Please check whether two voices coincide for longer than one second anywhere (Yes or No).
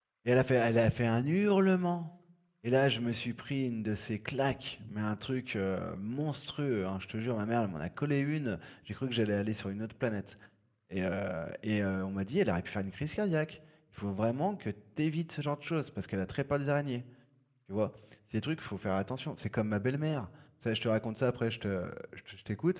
No